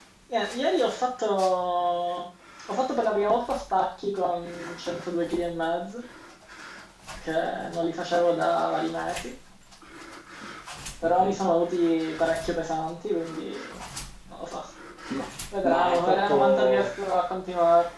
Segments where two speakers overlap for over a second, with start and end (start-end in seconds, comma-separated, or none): 15.6-16.9